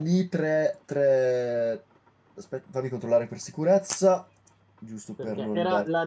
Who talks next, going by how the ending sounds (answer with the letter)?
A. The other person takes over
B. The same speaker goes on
A